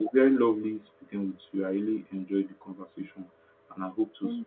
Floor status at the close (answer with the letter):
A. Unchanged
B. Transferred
A